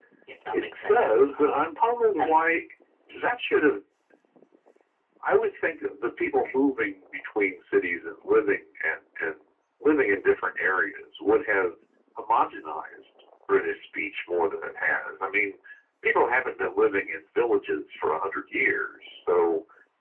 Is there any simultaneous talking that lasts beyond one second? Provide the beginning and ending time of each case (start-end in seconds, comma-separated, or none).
0.5-1.7